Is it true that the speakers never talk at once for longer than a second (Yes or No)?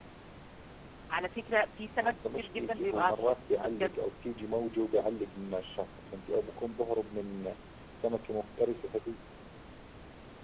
No